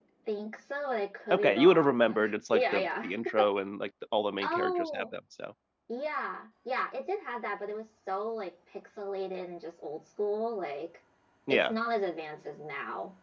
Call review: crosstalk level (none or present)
present